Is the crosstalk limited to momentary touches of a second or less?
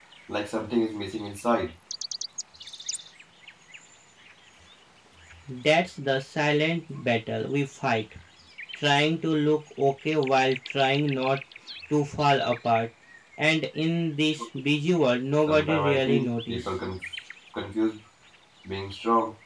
No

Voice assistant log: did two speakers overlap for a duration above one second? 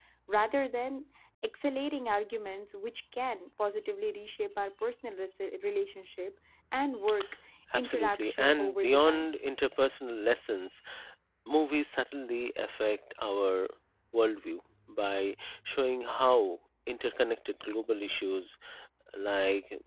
Yes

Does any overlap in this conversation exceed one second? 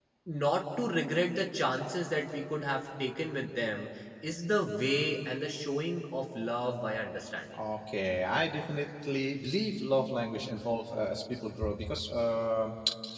No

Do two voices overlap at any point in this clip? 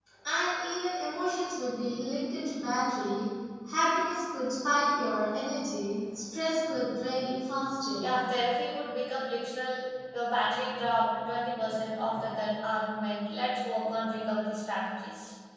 No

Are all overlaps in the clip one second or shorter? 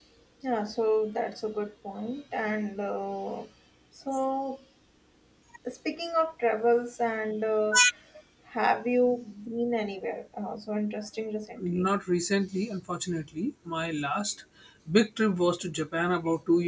Yes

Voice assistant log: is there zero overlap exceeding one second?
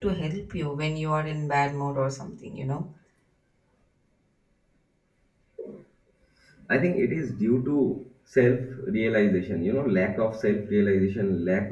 Yes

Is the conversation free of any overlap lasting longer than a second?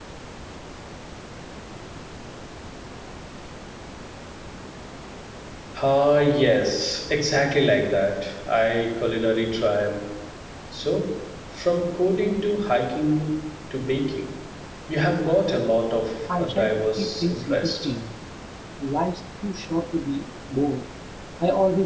No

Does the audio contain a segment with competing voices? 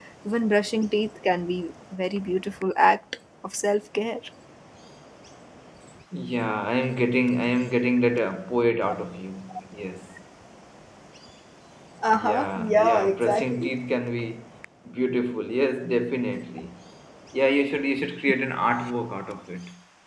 Yes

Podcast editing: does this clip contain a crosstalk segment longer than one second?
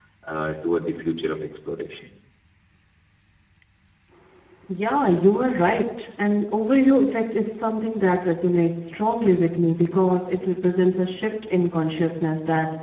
No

